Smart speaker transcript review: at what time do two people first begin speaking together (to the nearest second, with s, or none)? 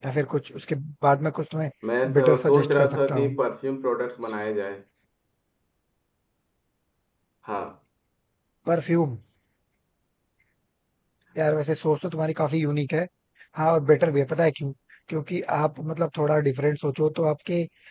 2 s